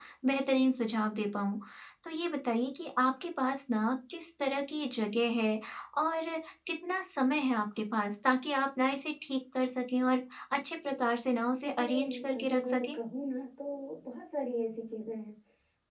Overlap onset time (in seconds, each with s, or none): 11.6 s